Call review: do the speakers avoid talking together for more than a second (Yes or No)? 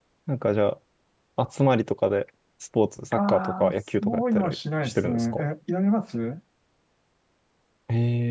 No